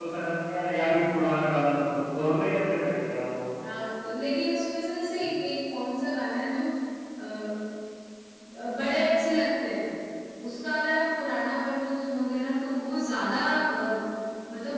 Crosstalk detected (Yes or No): No